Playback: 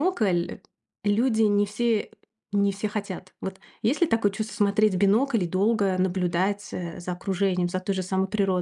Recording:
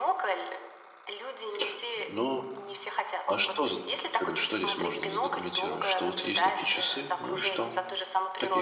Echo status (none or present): present